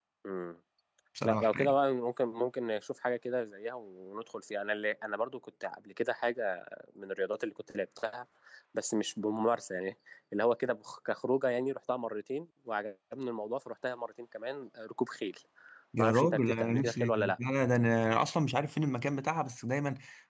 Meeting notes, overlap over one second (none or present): present